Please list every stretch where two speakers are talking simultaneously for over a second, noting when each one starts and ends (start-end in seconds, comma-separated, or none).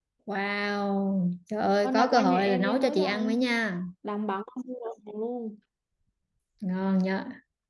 1.8-3.4